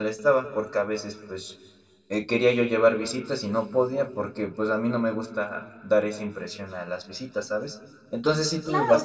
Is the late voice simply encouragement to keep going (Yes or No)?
No